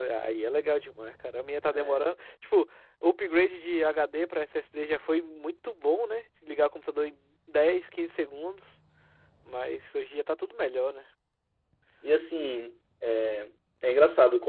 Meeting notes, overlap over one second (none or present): none